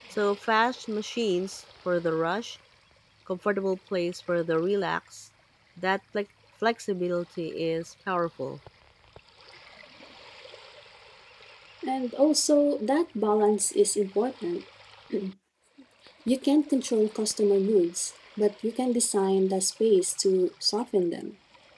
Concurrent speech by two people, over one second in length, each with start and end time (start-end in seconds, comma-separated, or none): none